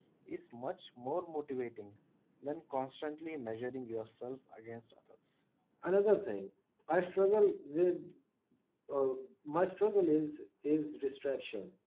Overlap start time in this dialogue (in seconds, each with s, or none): none